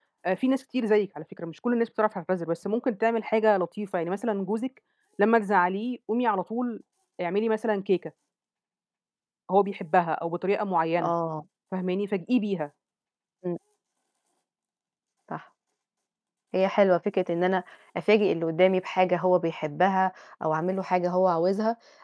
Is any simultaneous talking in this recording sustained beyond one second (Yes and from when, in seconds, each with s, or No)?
No